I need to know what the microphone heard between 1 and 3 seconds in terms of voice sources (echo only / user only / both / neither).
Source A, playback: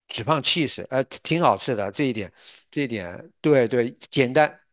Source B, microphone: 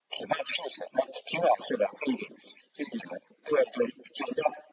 echo only